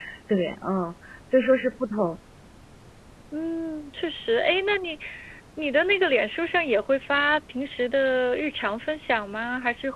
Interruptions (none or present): none